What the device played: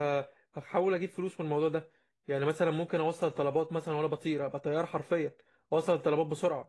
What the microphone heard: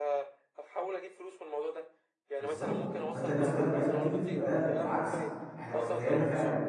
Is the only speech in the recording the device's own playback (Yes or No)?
No